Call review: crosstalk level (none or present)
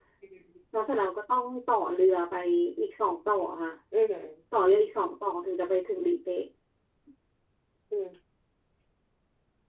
none